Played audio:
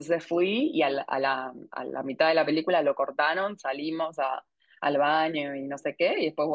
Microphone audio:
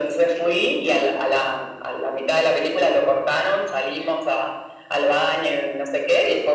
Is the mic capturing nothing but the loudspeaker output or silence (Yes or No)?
Yes